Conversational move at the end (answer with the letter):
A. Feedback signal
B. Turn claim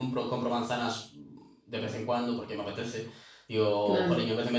A